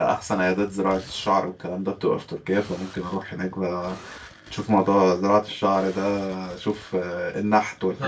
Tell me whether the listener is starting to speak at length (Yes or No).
Yes